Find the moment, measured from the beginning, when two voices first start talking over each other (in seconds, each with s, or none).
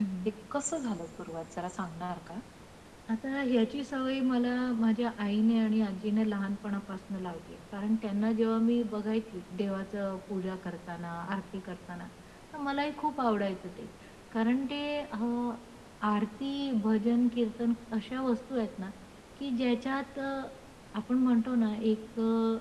none